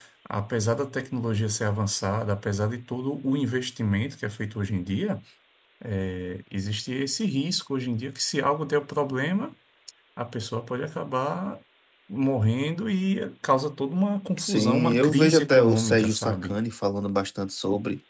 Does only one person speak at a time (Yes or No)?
No